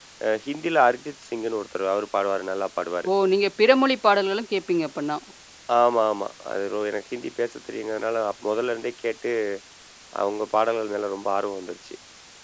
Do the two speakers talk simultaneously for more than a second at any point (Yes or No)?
No